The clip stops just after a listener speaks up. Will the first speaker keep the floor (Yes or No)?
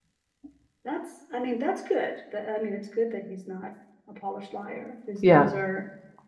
Yes